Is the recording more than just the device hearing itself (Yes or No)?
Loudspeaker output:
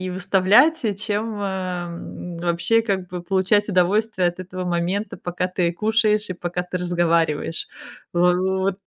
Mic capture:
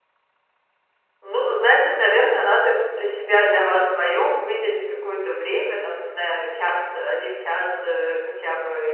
Yes